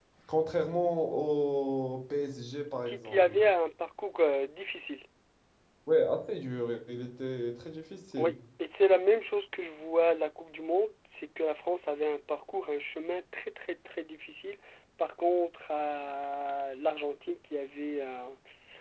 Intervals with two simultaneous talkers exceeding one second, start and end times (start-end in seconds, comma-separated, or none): none